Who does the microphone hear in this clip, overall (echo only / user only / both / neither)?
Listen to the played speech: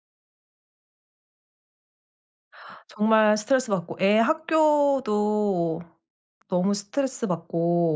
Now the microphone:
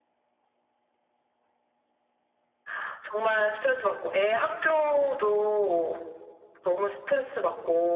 echo only